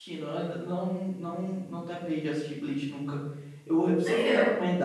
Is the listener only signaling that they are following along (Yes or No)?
Yes